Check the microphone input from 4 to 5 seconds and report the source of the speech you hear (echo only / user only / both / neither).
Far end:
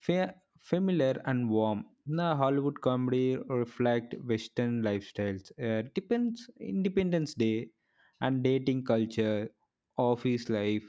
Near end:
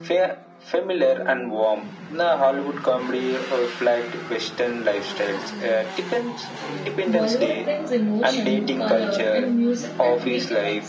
echo only